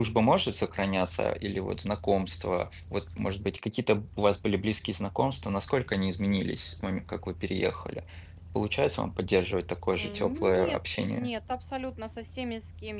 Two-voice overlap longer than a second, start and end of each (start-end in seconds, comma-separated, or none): 10.0-11.3